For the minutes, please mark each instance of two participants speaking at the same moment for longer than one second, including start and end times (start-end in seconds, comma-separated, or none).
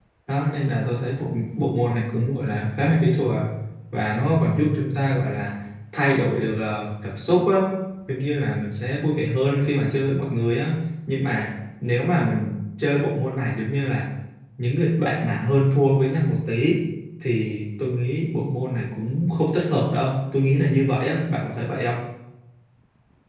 none